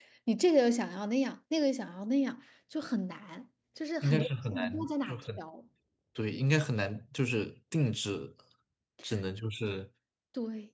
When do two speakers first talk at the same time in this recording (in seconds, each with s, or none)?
4.0 s